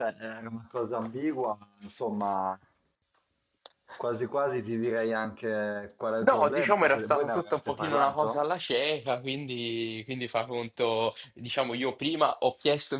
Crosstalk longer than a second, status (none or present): present